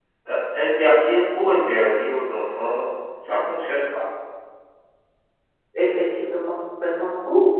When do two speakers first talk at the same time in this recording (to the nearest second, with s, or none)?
none